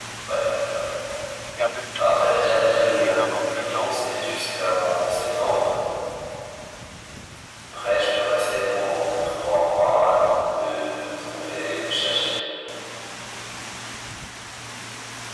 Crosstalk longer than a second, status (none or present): present